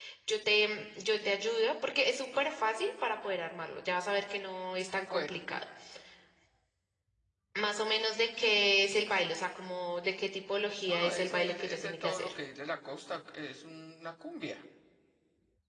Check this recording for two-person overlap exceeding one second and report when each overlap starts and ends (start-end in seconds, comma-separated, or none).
10.9-12.4